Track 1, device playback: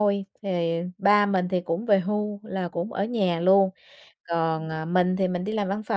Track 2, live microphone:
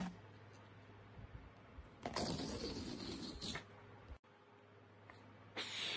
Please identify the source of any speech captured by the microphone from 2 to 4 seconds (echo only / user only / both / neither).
neither